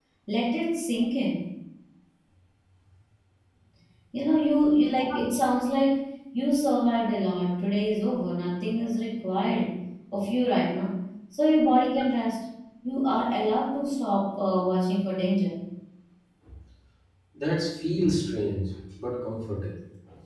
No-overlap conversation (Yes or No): Yes